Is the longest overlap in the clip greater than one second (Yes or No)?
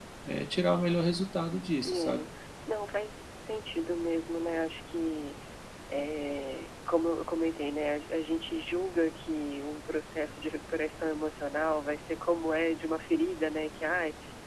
No